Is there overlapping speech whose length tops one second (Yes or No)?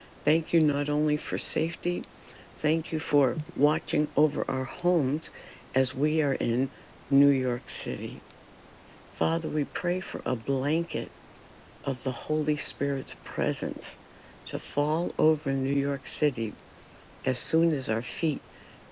No